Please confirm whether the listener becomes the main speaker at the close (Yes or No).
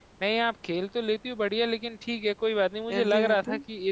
No